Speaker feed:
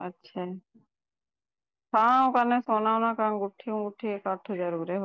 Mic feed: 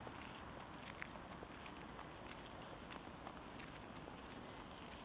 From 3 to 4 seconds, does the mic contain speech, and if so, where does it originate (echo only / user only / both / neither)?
neither